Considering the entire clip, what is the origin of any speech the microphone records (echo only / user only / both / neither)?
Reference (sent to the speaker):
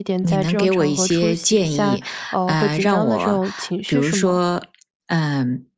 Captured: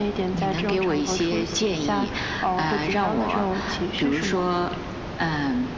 echo only